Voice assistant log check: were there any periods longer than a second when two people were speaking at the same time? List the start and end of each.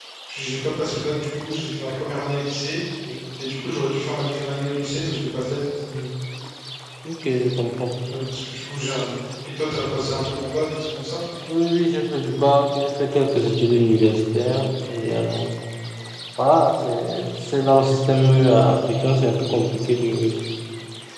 none

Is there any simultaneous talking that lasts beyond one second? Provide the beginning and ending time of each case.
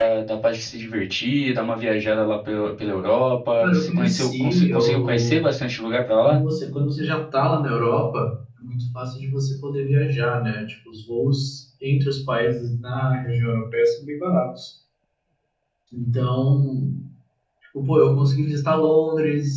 3.6-5.4

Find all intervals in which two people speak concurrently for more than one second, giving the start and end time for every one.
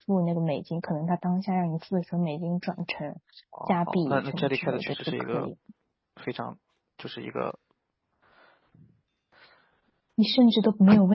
3.7-5.5

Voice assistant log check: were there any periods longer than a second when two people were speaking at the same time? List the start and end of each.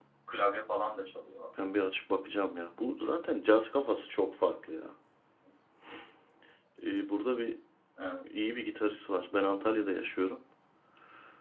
none

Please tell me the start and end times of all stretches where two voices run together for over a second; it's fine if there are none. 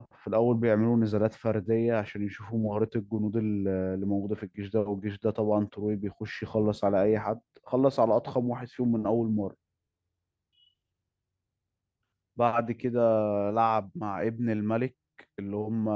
none

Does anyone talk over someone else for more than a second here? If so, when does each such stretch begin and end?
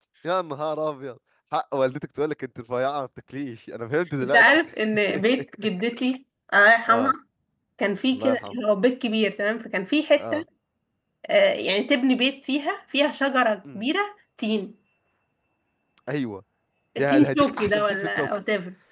17.0-18.3

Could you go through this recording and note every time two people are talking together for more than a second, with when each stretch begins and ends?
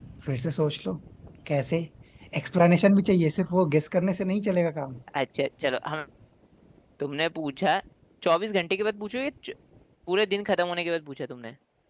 none

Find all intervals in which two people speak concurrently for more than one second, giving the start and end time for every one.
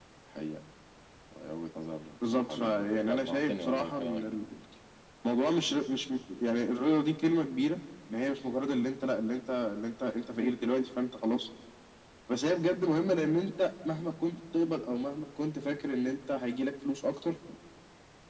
2.3-4.4

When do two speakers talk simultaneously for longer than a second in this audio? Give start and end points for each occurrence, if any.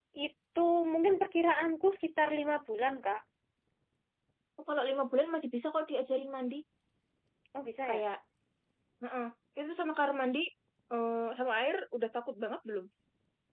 none

